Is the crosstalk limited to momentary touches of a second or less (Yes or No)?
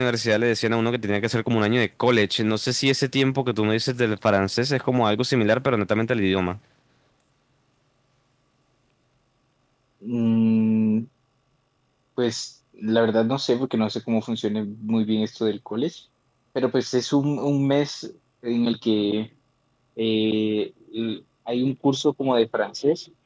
Yes